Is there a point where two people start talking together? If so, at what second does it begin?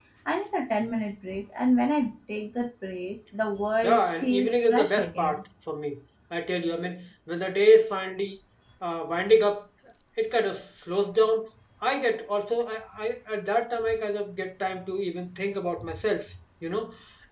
3.8 s

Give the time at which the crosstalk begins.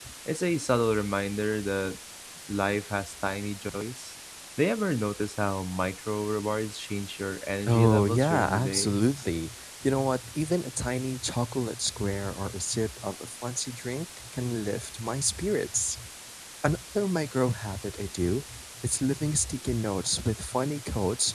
7.7 s

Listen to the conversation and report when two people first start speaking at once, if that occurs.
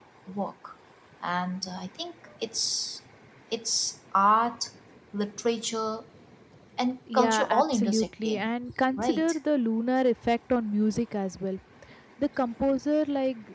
7.1 s

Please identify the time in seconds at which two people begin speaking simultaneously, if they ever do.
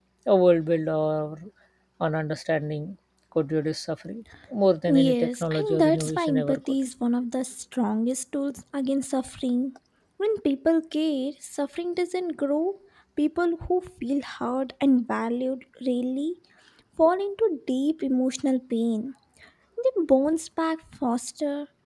4.9 s

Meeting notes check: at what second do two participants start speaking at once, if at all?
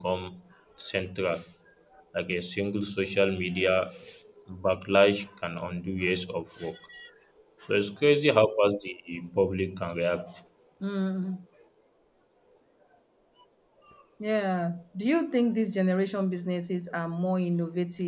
none

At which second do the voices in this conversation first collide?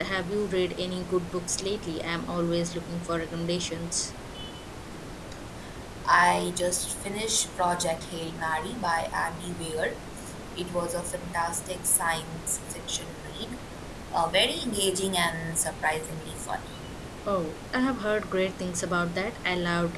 none

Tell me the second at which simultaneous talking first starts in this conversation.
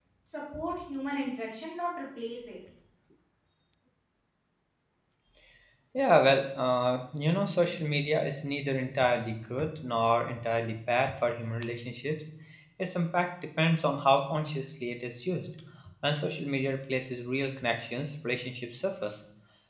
none

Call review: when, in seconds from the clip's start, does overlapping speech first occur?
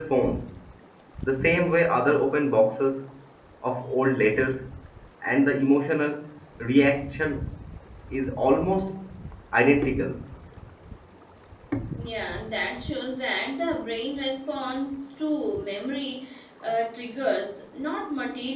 none

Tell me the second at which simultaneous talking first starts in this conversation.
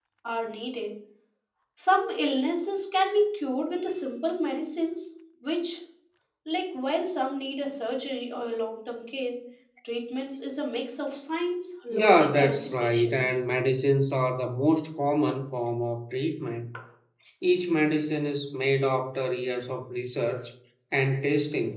11.9 s

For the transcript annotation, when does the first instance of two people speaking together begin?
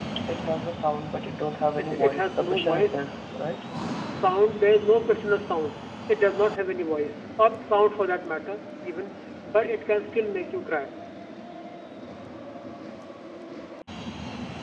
1.8 s

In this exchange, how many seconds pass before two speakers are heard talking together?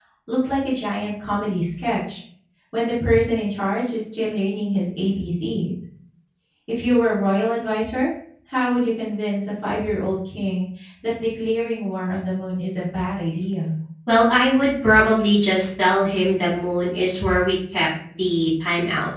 none

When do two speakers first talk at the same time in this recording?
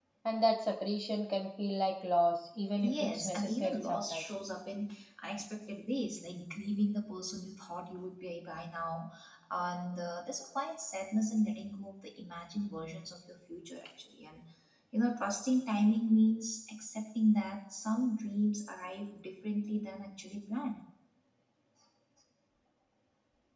2.8 s

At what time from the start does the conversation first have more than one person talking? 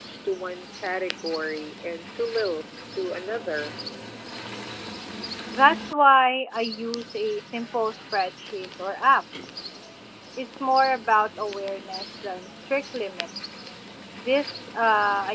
none

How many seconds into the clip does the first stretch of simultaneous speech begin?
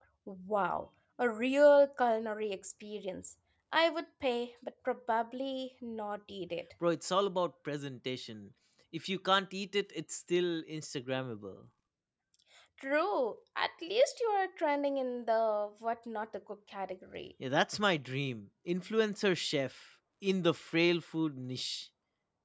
none

